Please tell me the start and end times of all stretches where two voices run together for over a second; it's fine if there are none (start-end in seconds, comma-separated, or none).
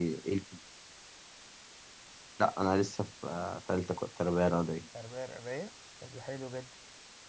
none